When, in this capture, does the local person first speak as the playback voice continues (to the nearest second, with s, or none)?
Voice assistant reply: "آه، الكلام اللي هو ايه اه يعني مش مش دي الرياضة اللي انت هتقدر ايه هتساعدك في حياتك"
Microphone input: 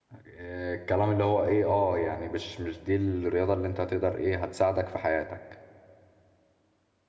none